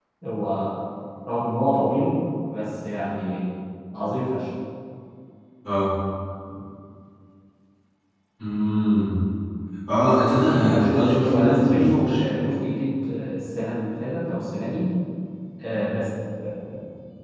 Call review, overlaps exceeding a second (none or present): present